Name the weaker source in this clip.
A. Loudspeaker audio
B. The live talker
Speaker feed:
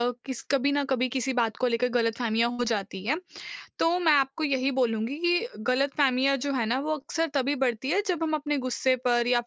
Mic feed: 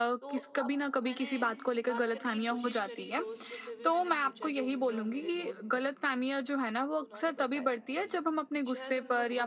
B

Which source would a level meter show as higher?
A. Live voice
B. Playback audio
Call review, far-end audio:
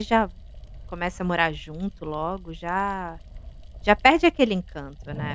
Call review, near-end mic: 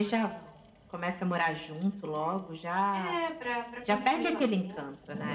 B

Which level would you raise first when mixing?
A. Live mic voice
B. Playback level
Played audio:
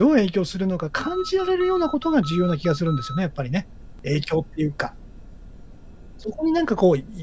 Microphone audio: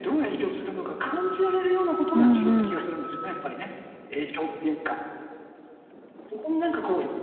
B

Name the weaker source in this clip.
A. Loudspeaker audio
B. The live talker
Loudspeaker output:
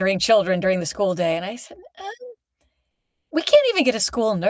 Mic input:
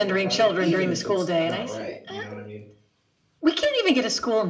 B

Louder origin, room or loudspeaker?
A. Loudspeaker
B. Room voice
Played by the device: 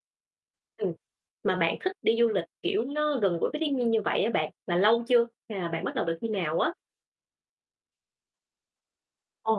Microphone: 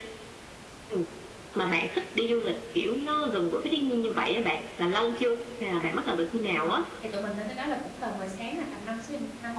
A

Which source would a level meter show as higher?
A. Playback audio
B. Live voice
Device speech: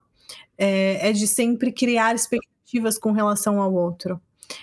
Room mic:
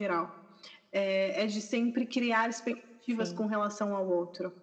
A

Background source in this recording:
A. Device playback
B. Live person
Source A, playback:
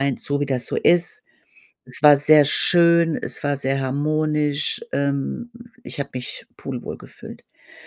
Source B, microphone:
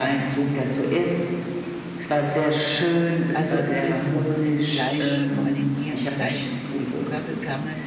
B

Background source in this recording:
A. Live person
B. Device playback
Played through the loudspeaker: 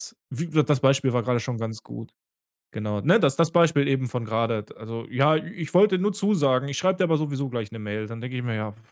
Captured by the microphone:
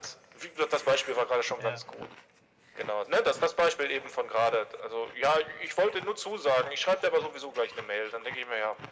A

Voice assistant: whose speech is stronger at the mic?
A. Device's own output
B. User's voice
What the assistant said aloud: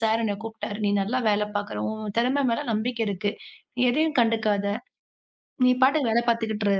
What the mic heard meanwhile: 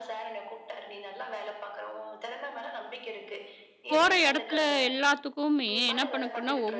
B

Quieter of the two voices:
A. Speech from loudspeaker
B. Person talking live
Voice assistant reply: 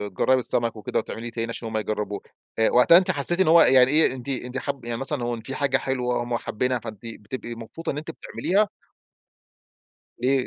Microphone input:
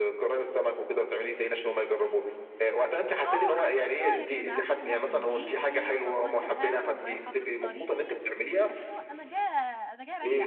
B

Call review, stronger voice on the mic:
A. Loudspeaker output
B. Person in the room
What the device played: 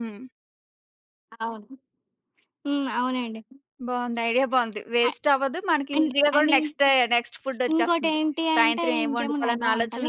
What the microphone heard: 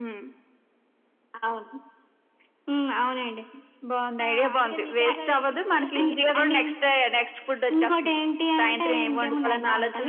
A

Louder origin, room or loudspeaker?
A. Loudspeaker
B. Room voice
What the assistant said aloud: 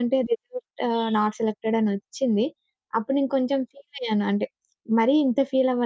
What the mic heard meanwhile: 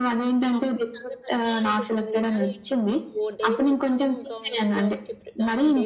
A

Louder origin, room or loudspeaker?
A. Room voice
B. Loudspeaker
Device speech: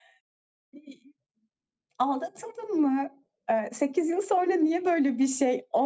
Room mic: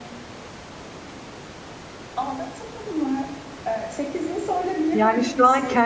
A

